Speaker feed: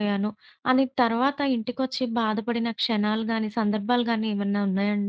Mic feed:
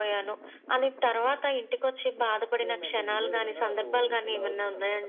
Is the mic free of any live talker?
No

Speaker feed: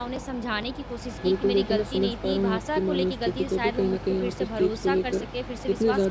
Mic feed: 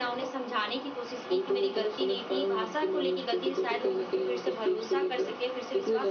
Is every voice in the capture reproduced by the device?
Yes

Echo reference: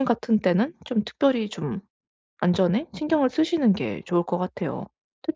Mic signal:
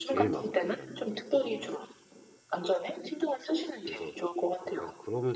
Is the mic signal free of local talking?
No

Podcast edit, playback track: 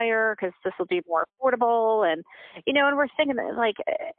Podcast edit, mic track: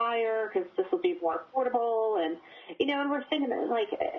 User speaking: No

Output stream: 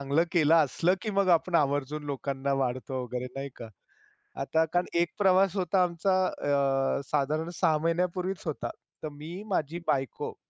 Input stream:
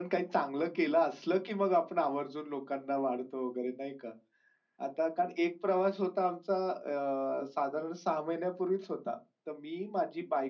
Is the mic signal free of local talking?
Yes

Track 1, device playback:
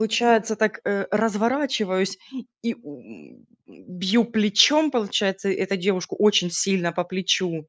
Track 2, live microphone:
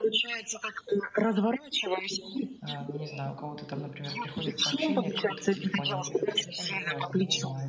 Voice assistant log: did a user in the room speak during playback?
Yes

